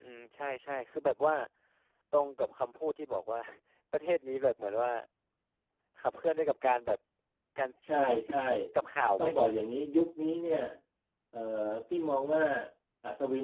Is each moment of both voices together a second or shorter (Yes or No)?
Yes